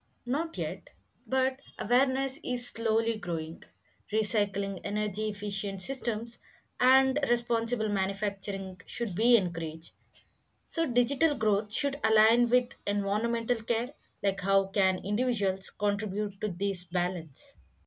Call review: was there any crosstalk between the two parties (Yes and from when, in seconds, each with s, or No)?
No